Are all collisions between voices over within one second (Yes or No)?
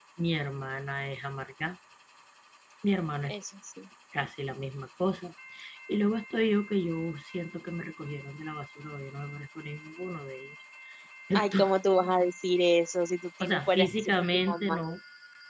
No